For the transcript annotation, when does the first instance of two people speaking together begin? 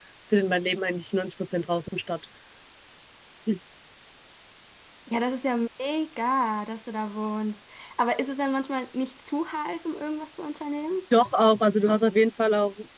none

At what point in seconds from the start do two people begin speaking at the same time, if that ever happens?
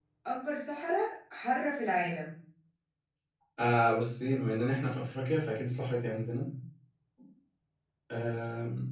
none

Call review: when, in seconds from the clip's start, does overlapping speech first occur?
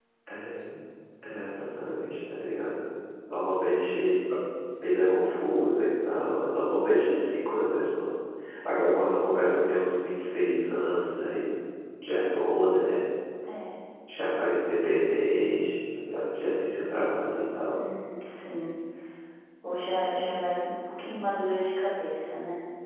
none

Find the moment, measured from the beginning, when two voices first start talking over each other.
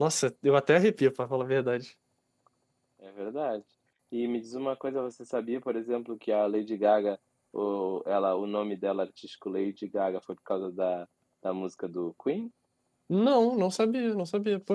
none

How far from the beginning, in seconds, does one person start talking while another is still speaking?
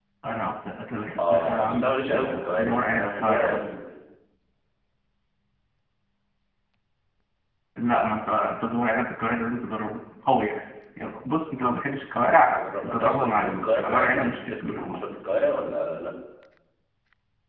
1.2 s

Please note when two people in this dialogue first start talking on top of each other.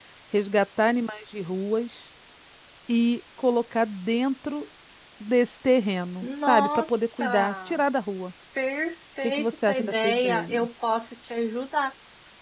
6.2 s

